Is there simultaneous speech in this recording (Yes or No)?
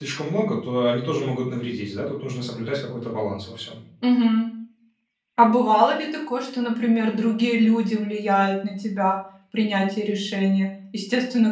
No